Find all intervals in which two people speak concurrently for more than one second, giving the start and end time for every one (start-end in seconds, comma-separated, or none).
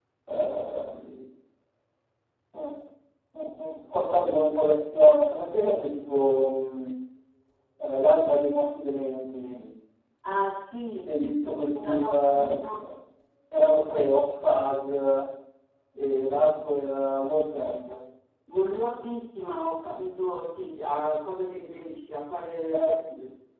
11.0-12.7